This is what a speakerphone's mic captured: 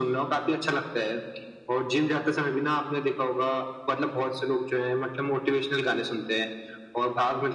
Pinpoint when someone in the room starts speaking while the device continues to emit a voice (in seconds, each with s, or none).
none